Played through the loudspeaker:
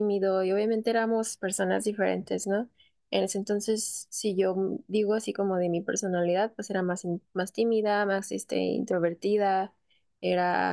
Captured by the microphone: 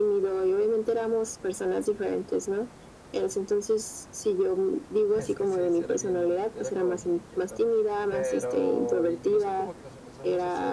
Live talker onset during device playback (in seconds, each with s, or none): 5.1 s